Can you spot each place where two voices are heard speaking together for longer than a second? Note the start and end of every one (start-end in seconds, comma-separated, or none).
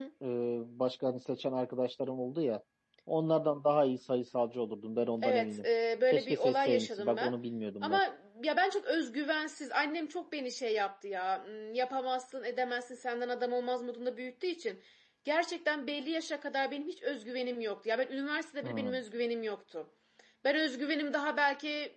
6.1-7.3